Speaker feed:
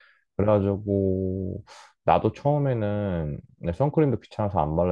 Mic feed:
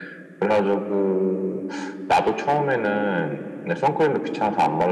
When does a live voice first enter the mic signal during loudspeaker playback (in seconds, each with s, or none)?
none